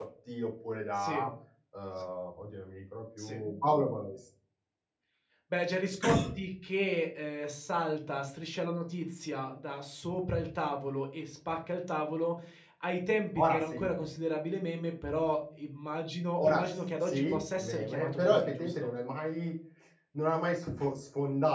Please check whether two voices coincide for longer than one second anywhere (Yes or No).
Yes